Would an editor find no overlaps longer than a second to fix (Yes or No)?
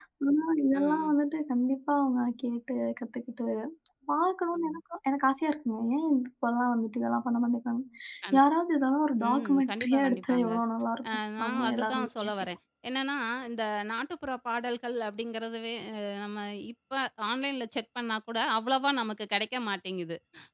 No